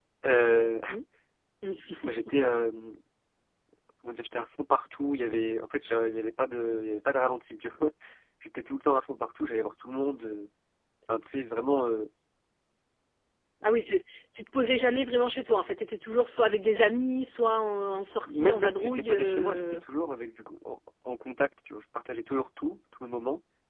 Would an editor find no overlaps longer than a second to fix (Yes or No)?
No